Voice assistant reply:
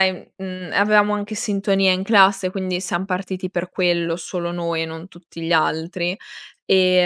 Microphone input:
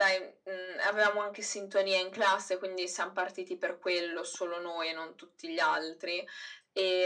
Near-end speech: none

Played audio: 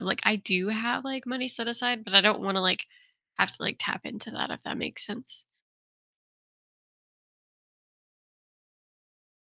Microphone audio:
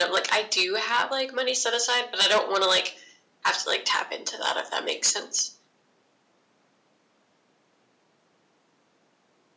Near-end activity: none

